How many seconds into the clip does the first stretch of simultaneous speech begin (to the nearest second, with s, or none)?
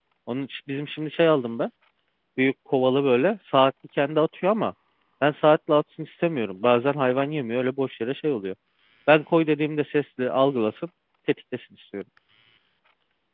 none